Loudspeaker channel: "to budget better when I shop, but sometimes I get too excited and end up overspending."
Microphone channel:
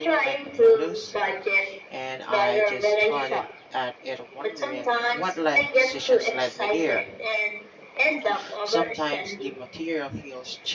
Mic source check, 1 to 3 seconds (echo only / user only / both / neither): both